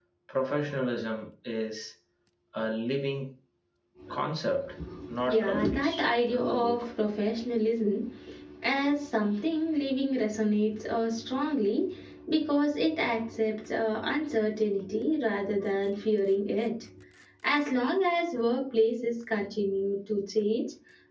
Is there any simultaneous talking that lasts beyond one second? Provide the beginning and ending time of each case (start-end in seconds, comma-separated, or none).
5.2-6.9